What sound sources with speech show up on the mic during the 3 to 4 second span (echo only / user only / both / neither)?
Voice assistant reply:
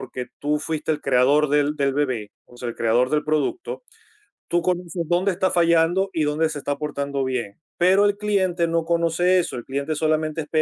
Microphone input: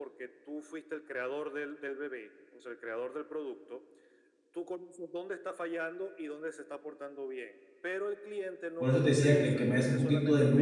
echo only